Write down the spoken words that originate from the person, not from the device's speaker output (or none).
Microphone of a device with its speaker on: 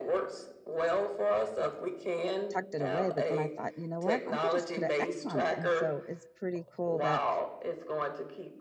tucked it away. But then I thought, you know what? I could just put an X on it, and so it's pretty cool that